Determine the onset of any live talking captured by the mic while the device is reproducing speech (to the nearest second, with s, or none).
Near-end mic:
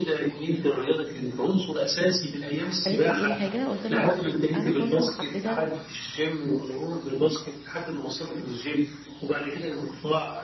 3 s